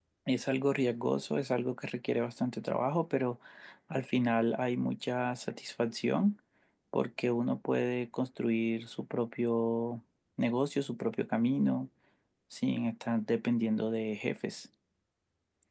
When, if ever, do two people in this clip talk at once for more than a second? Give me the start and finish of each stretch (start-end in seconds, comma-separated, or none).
none